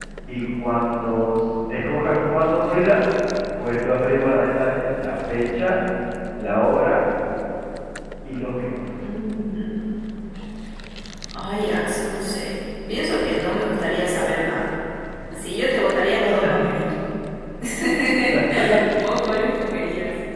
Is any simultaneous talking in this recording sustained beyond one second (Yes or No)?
No